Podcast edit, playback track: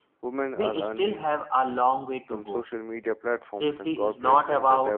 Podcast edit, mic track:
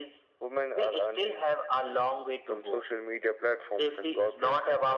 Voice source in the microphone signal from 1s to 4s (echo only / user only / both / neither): echo only